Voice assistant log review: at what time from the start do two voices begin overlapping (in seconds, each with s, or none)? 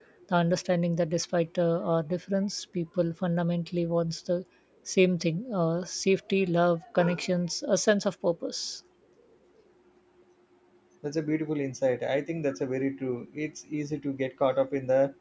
none